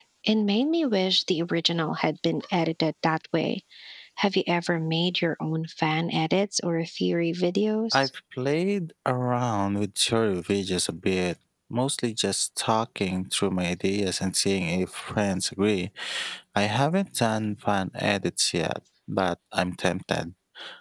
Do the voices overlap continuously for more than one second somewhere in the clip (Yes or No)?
No